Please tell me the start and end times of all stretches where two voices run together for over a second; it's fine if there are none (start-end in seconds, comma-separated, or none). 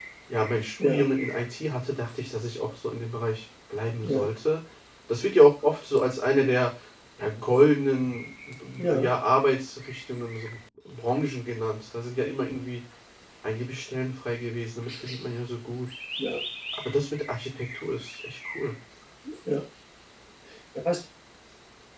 none